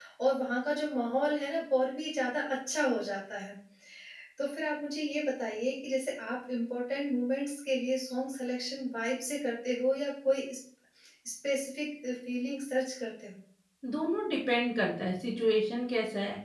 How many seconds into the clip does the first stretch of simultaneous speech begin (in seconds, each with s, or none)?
none